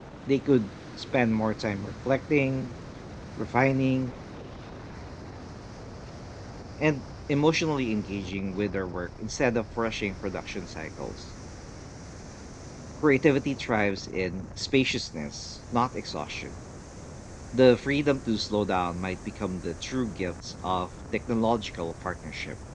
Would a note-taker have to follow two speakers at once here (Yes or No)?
No